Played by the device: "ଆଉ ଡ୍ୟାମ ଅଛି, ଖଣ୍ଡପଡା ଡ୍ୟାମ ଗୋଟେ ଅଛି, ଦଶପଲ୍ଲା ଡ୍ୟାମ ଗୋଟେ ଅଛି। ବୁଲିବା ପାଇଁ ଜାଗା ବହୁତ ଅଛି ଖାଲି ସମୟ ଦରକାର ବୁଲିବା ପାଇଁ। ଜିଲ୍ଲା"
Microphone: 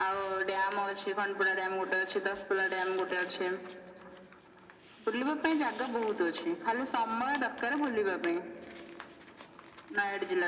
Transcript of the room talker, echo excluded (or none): none